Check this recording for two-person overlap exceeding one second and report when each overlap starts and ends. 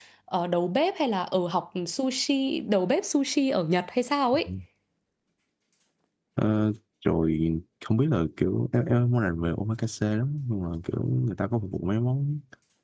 none

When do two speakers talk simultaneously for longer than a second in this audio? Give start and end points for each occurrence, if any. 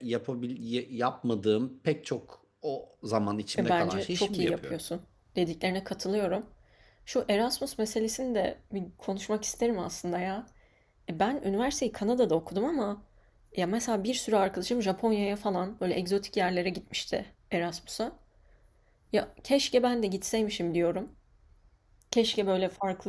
3.6-4.8

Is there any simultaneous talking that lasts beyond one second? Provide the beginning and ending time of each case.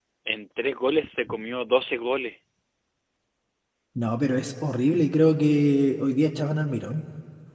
none

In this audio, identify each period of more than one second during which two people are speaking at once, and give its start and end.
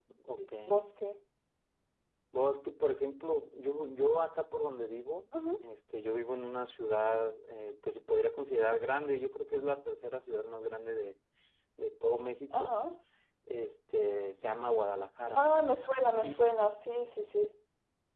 none

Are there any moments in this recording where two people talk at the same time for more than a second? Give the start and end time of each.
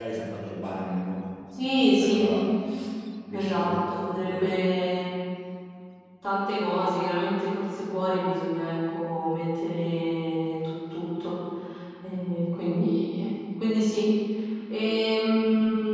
3.3-4.5

